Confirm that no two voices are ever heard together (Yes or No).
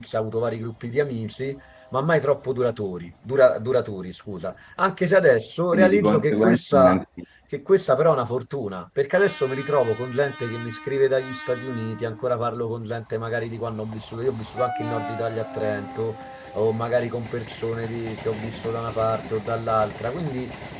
No